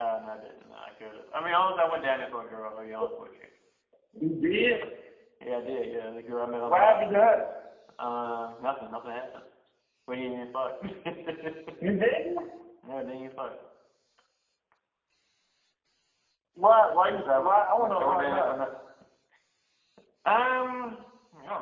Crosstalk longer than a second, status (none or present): present